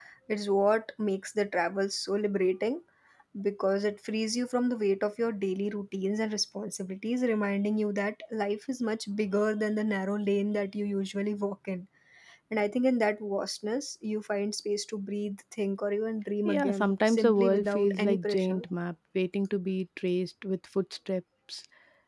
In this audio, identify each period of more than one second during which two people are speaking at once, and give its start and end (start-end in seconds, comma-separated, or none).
16.4-18.6